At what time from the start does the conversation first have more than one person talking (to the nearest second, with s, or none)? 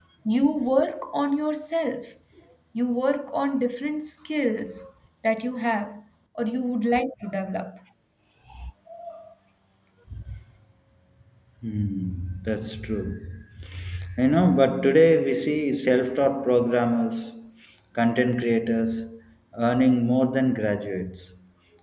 none